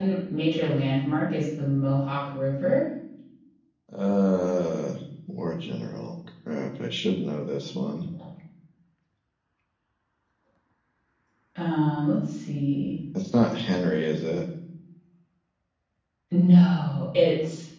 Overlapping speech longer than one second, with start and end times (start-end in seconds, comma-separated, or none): none